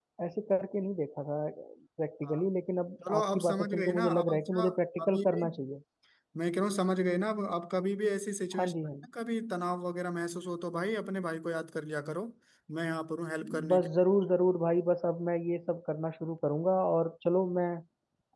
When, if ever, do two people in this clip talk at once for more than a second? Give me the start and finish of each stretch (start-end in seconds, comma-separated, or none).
3.1-4.6